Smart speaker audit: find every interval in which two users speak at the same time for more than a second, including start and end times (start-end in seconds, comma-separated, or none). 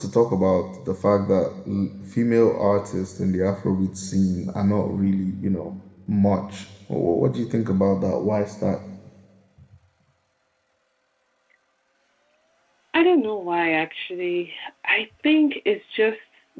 none